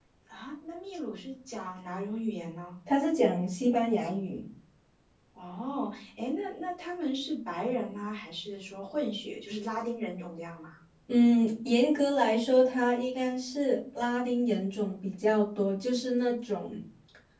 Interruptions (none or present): none